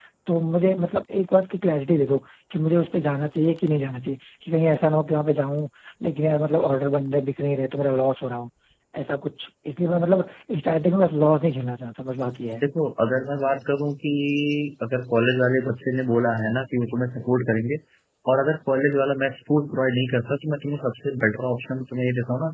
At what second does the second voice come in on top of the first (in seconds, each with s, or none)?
none